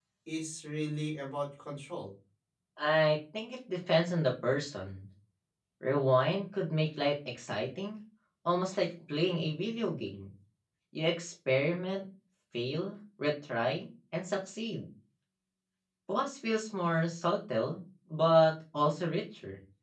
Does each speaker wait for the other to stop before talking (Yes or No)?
Yes